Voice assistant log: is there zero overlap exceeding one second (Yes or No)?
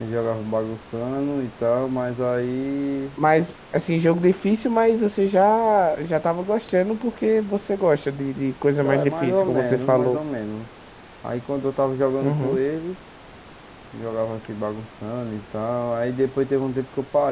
No